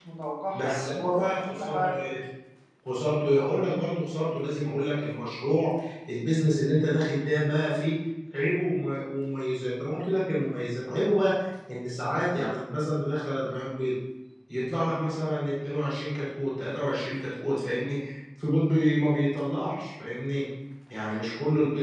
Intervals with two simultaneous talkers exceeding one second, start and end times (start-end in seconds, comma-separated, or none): 0.5-2.0